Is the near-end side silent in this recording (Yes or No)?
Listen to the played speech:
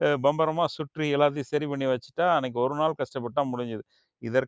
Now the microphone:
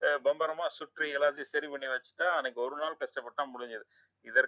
Yes